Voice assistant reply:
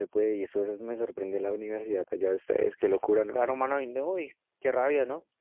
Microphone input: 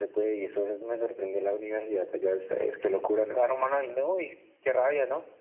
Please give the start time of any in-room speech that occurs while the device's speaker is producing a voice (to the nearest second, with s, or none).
none